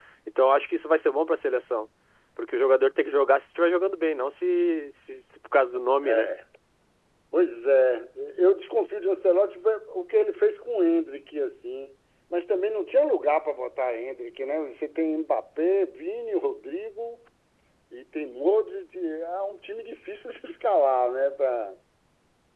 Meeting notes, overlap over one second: none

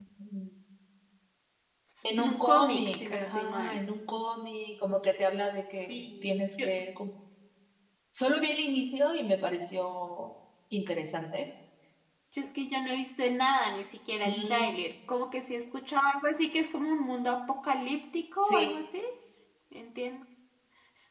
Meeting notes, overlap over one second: present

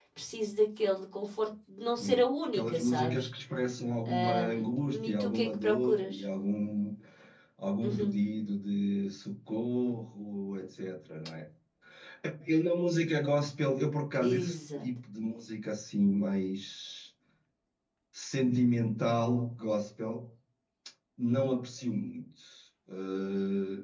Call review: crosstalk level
present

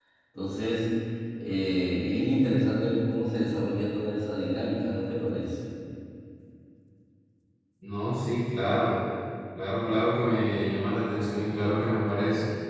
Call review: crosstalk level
none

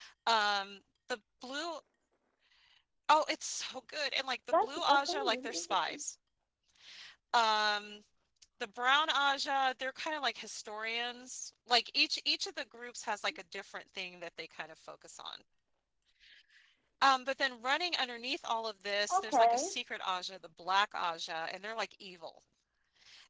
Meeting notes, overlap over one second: present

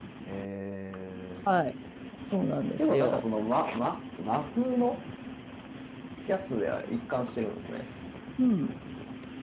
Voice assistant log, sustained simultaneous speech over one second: none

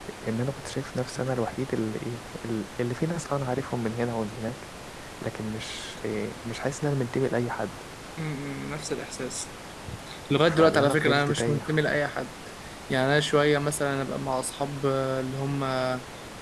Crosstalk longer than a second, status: present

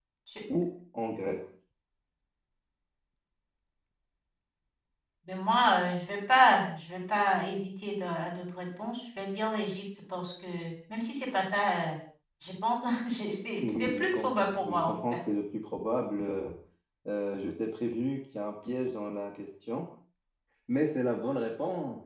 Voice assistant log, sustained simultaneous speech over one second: present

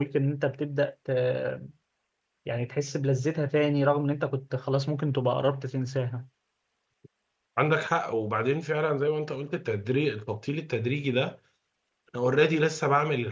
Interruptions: none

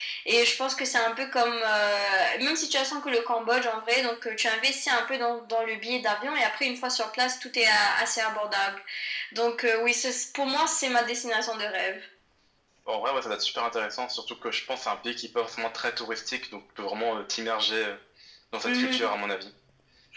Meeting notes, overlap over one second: none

